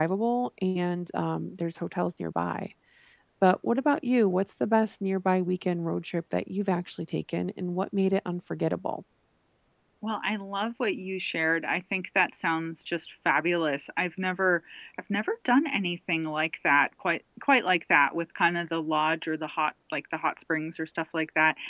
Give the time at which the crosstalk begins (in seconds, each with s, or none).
none